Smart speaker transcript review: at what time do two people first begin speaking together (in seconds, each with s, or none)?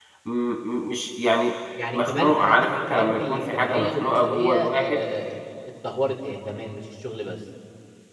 1.8 s